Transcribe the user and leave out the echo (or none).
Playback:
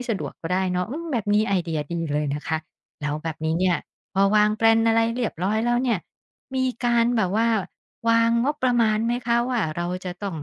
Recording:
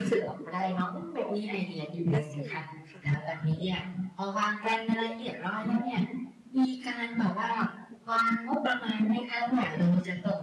แล้วส่วนค่ะ